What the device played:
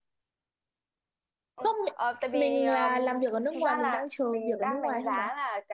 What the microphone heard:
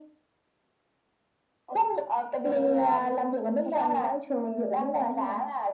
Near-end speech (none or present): none